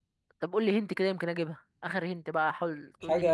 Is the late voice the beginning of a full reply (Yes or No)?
Yes